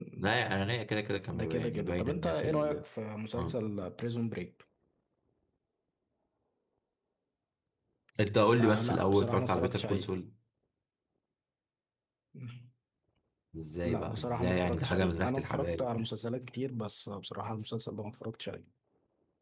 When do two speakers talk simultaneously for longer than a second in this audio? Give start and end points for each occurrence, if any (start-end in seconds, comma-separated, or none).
1.3-2.8, 8.6-10.1, 13.8-15.9